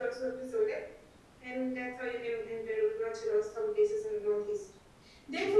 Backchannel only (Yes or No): Yes